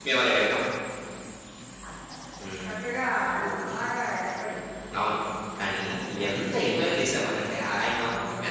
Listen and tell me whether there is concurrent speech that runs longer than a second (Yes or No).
No